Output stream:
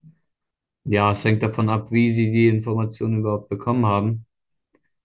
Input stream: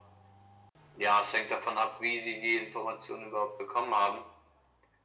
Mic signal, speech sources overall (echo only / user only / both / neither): echo only